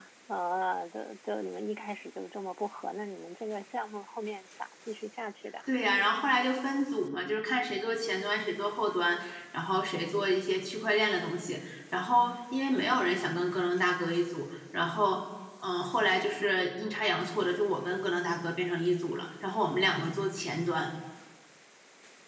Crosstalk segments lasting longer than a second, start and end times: none

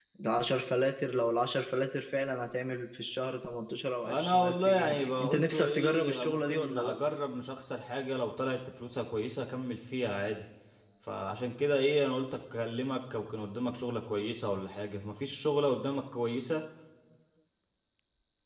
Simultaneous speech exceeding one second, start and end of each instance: 4.0-7.0

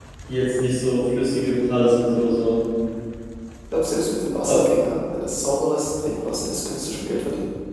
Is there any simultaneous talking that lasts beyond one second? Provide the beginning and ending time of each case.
none

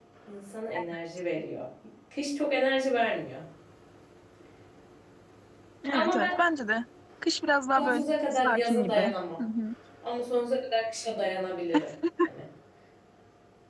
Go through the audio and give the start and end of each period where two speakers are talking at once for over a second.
7.8-9.0

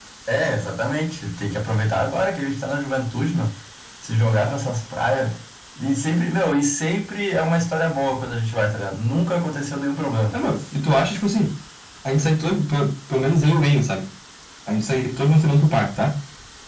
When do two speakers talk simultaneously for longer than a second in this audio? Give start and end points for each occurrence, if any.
none

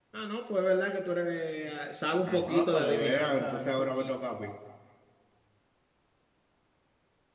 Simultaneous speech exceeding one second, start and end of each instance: 2.3-4.1

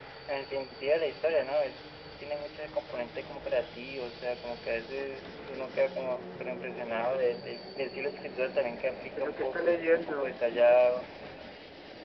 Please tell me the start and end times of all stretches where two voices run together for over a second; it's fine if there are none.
9.2-11.0

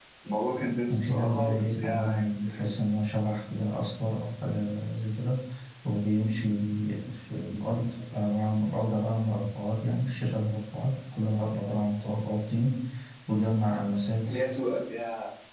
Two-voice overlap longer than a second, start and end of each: 0.9-2.7

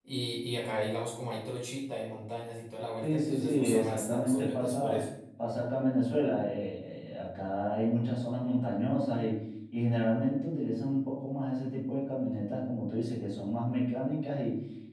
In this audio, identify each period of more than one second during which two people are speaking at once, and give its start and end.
3.0-5.0

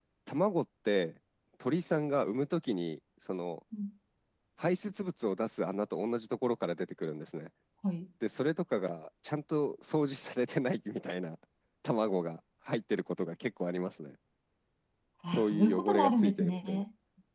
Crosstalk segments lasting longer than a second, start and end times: 15.3-16.8

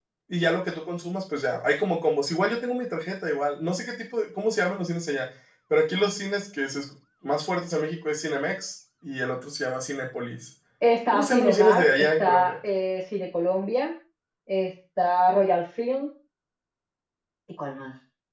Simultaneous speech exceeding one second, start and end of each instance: 11.1-12.5

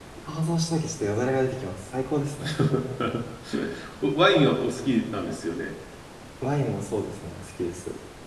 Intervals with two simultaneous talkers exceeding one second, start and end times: none

